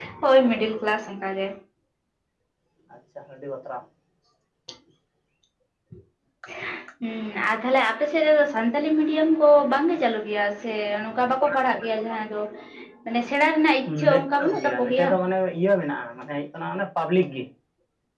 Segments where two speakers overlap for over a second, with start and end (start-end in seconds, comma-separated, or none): 13.9-15.1